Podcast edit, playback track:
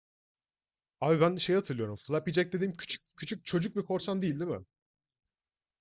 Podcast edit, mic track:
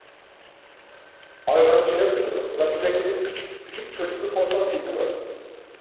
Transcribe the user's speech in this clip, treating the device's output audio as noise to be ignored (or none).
none